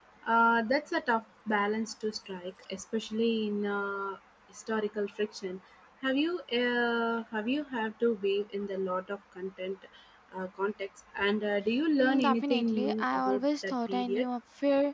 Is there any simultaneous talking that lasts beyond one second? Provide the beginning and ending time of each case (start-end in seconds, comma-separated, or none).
12.0-14.3